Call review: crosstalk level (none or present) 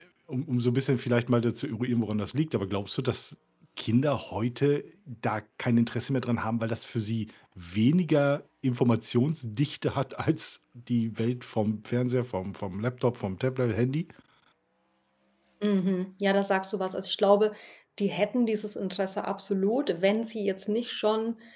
none